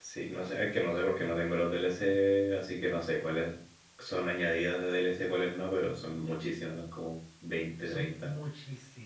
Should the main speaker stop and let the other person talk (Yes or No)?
Yes